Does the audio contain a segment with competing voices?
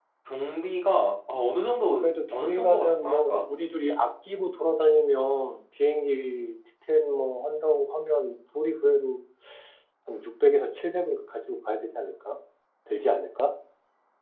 Yes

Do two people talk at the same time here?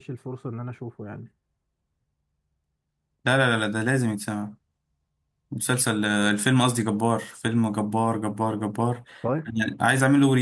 No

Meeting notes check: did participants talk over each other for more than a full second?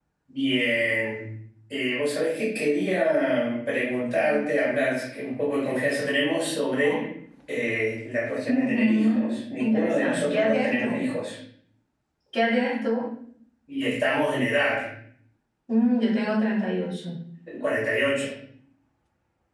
Yes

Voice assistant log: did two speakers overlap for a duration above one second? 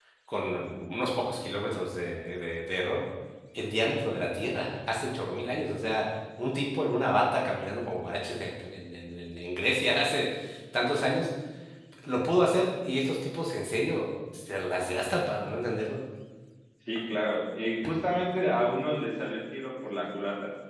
No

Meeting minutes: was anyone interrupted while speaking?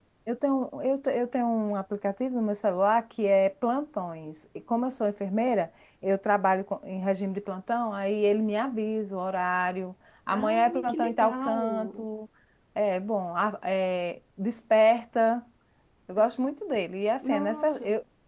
Yes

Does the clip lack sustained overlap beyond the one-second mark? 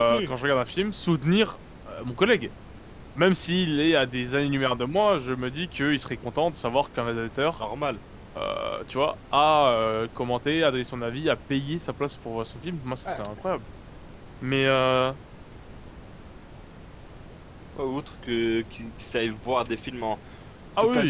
Yes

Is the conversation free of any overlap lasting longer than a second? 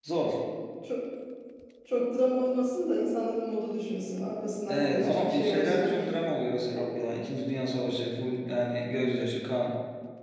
No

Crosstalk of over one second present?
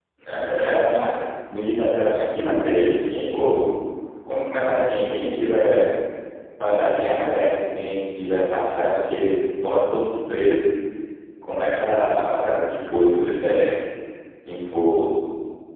No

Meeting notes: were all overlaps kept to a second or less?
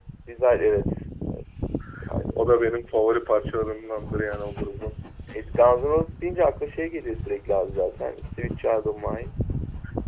Yes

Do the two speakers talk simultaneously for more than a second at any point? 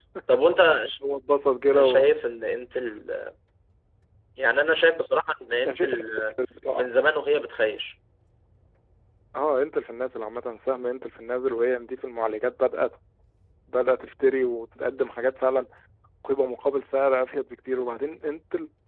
No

